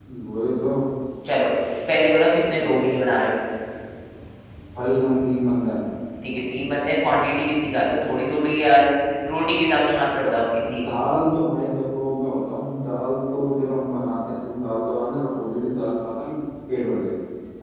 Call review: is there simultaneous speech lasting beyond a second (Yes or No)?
No